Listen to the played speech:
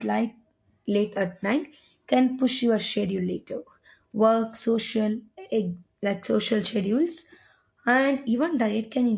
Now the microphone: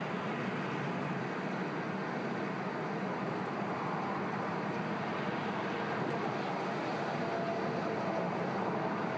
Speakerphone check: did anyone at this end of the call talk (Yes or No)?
No